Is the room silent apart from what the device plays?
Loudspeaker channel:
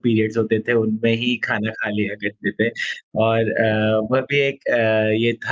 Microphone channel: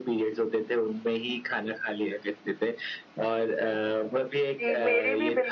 No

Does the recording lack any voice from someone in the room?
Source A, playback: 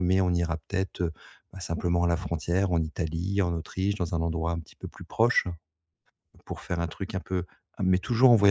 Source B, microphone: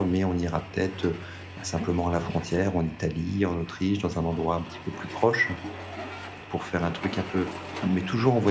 Yes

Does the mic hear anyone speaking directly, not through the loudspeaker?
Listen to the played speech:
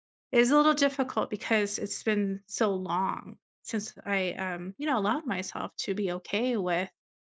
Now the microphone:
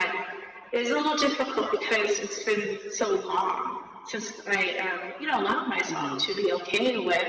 Yes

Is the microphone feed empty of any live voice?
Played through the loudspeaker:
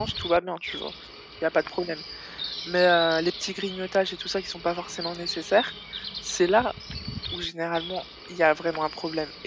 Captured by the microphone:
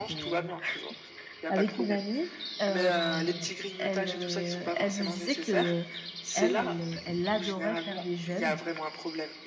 No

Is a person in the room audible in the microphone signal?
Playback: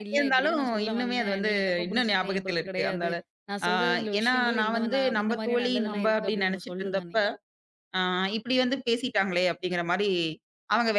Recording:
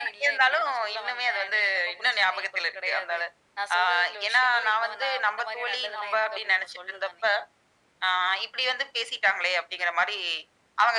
No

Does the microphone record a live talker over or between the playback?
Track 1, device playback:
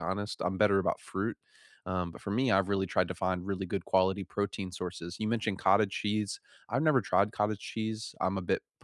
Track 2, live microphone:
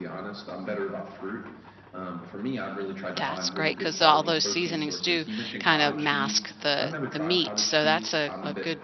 Yes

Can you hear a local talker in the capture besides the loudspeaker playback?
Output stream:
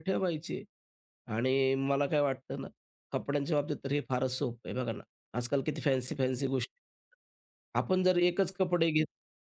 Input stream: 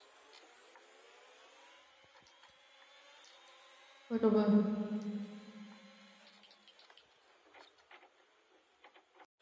Yes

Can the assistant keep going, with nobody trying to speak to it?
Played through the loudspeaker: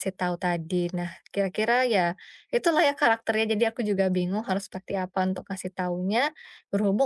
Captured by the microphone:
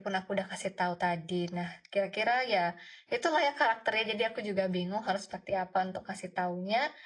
Yes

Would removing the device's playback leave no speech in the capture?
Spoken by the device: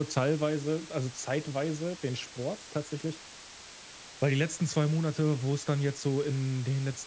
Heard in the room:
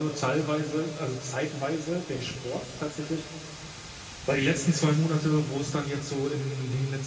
Yes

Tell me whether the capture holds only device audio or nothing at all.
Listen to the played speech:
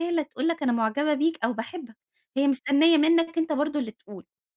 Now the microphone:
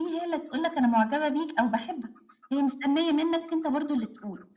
Yes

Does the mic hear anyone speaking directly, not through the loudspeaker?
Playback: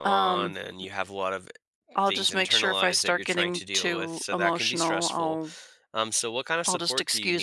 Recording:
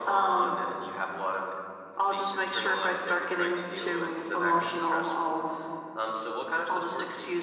No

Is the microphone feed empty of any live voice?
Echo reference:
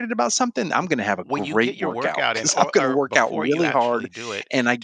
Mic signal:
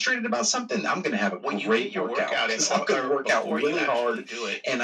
Yes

